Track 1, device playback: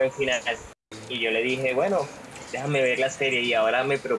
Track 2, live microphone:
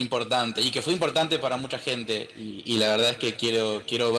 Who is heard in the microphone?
user only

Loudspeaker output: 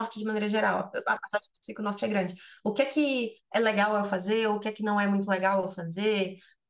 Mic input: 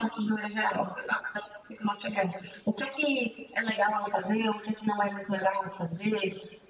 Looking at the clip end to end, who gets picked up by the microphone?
echo only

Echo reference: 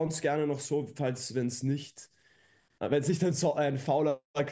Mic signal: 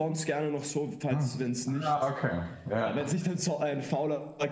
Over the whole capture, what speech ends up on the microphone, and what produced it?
both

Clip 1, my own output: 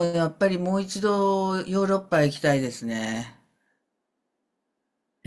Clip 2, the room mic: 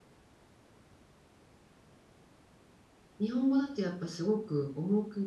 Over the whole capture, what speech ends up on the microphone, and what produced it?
user only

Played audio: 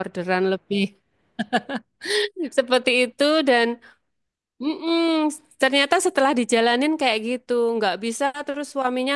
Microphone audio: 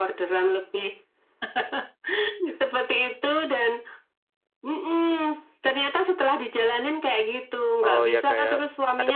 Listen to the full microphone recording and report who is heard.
both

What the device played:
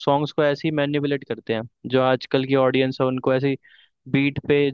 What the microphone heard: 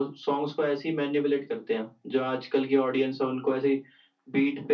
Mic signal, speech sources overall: echo only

